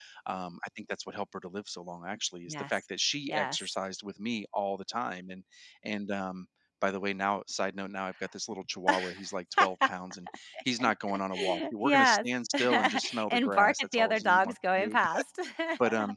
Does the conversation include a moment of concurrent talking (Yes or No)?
Yes